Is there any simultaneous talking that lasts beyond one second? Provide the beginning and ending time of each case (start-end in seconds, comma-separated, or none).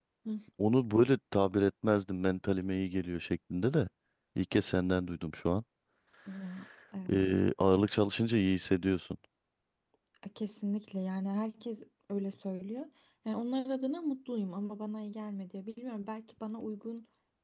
none